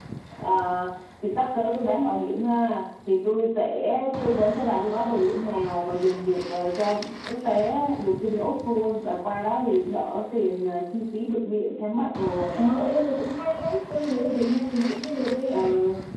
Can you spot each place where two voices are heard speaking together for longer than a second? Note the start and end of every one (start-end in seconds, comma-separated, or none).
none